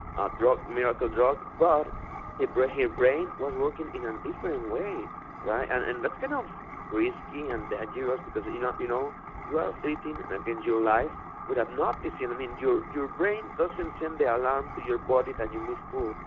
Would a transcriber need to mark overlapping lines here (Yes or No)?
No